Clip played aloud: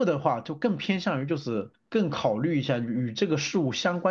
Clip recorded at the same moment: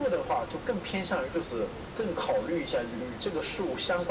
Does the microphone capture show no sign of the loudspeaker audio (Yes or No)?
No